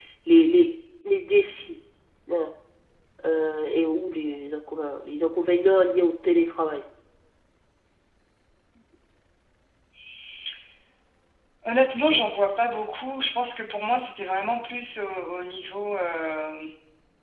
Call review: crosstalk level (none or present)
none